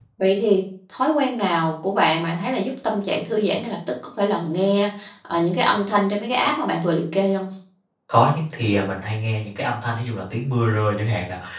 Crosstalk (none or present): none